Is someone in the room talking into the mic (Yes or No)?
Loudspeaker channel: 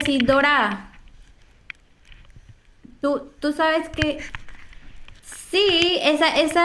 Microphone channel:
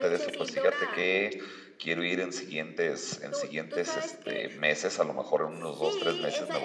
Yes